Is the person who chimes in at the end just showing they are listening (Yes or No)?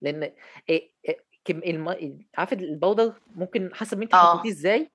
Yes